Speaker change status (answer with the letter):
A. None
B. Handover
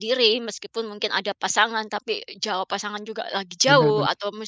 A